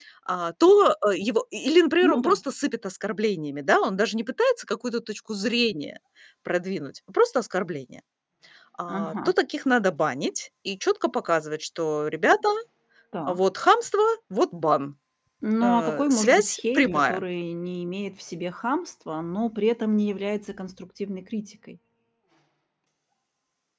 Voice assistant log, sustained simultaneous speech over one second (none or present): present